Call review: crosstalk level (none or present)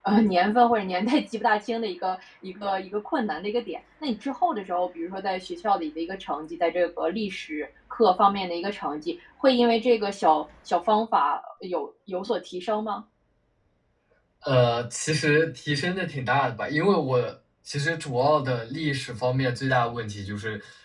none